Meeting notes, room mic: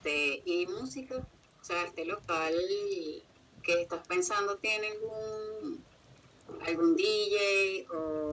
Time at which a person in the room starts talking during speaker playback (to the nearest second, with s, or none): none